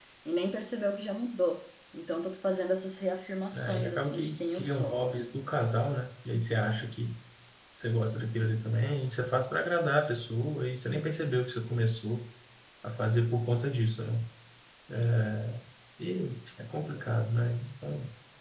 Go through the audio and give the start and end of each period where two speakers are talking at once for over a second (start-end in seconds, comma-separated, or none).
3.5-5.0